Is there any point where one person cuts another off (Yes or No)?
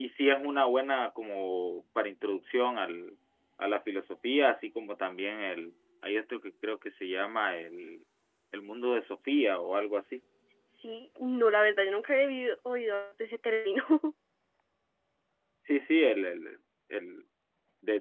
No